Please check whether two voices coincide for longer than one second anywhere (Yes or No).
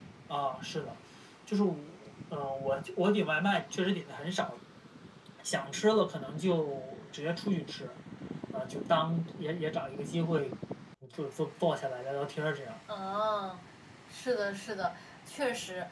No